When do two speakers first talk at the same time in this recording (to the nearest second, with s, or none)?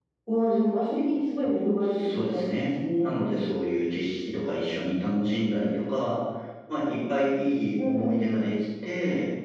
2 s